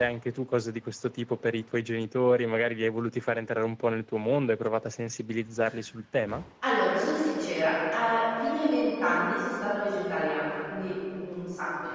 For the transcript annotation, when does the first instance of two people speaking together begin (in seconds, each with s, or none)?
none